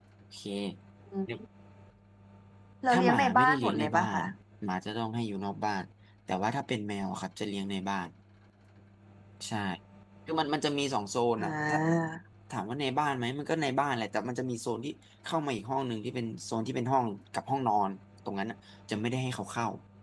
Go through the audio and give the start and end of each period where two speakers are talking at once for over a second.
2.9-4.2

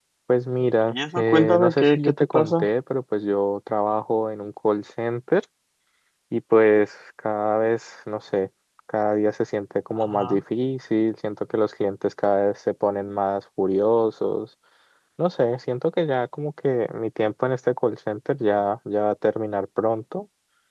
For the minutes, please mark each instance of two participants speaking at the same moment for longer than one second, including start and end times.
0.9-2.7

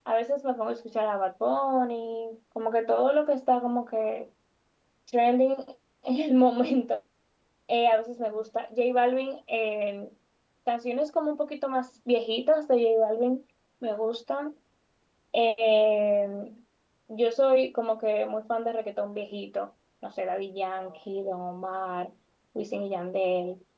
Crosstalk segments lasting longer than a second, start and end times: none

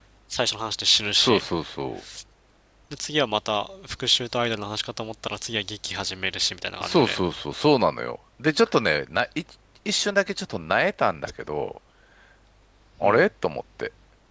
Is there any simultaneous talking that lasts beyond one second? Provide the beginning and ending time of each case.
none

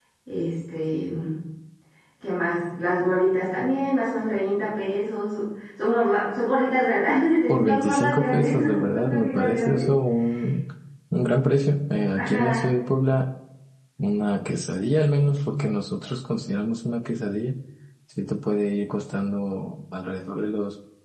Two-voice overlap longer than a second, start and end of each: 7.5-9.9

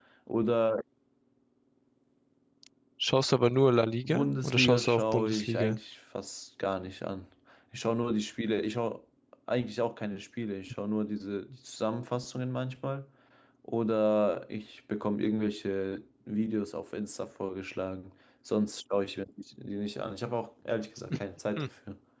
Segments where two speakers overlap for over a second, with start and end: 4.0-5.8

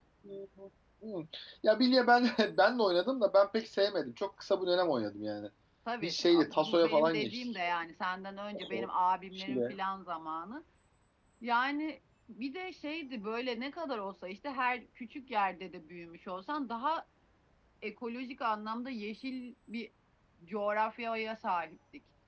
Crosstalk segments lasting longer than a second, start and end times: 6.0-7.4

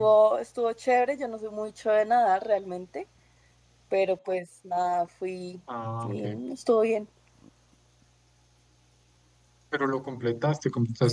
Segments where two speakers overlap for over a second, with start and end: none

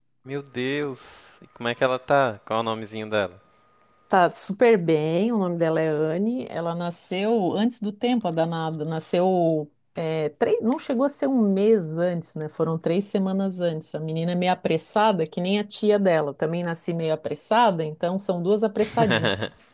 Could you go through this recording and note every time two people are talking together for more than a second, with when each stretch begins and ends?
none

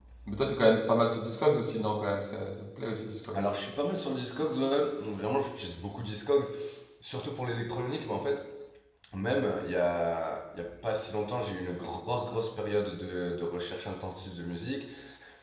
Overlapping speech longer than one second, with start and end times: none

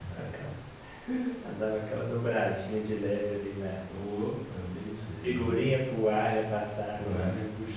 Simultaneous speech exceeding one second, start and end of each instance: none

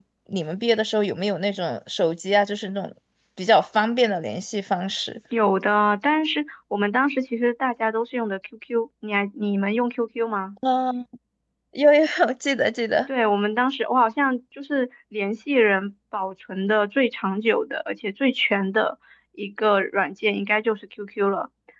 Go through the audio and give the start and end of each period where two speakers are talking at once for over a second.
none

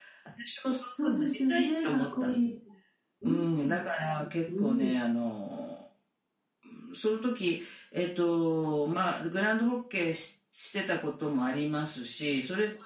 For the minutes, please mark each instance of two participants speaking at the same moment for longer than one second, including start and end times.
1.0-2.4

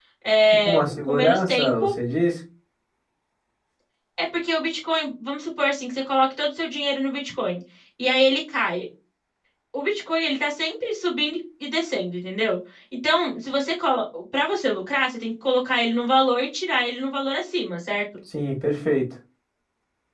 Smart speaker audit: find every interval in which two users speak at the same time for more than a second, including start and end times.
0.6-1.9

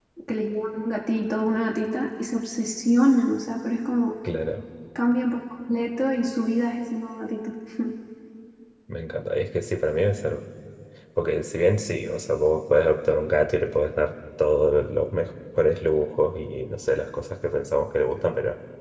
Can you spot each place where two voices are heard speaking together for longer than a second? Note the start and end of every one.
none

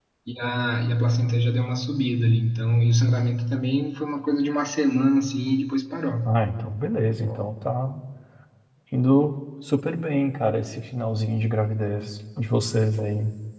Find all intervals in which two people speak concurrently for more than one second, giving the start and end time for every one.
none

